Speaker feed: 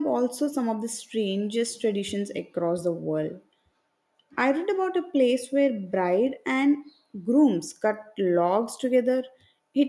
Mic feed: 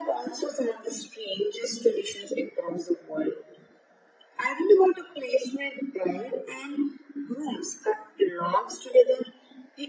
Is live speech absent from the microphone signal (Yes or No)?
Yes